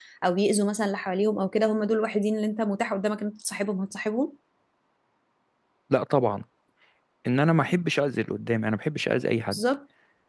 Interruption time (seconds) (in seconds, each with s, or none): none